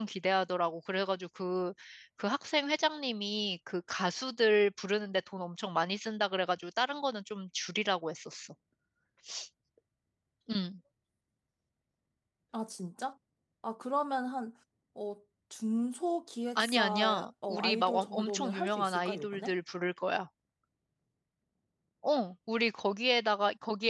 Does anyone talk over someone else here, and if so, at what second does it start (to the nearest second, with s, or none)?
17 s